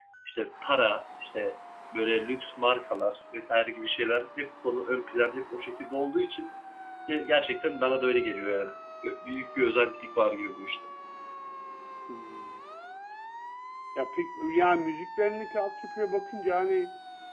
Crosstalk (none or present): none